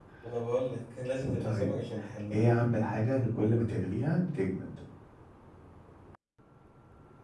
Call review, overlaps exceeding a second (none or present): none